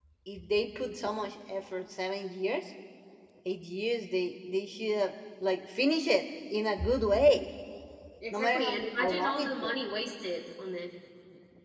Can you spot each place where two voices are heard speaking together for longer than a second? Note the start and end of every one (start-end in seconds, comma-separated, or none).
8.3-9.8